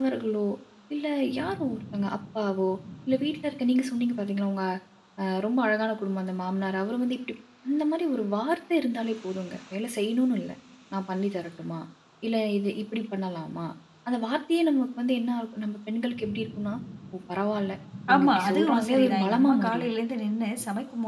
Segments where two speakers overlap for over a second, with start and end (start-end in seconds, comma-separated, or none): 18.1-19.9